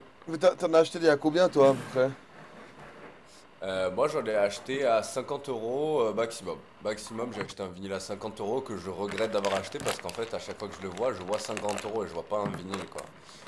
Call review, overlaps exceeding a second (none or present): none